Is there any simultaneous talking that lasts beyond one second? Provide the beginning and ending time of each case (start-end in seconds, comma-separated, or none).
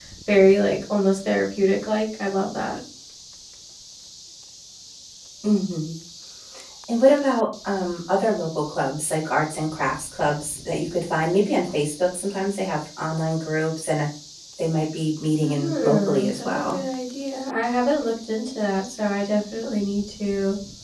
15.4-16.8